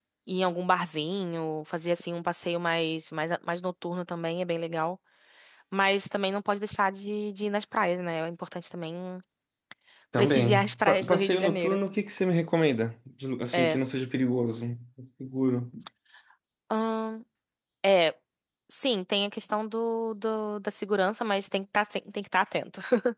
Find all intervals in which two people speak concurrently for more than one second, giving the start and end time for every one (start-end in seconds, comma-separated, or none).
10.2-11.8